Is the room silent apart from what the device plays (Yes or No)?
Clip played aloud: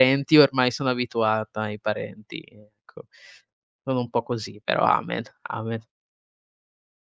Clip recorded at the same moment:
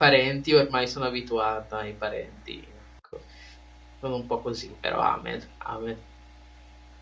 Yes